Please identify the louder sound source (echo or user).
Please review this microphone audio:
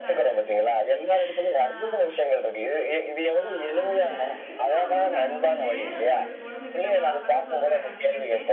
echo